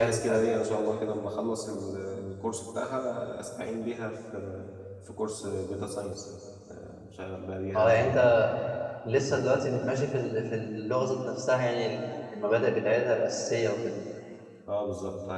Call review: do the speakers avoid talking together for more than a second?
Yes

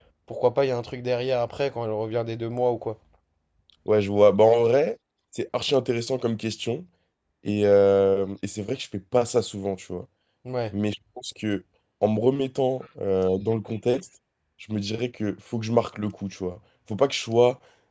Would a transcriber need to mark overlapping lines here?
No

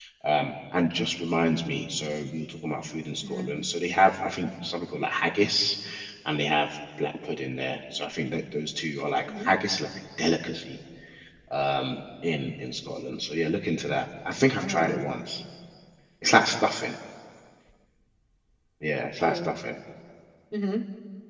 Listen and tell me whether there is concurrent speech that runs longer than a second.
No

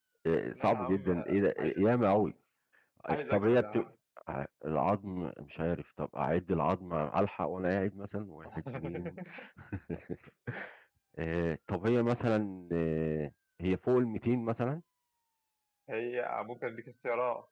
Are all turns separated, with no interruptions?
No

